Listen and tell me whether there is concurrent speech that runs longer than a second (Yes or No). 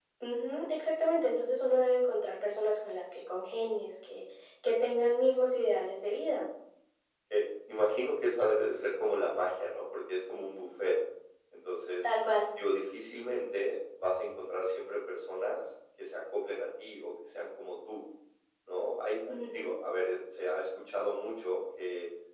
No